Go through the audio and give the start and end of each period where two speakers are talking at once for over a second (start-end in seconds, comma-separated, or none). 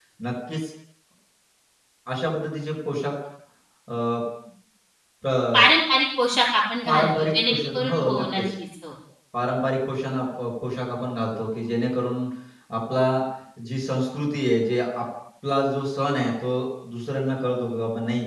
6.9-8.4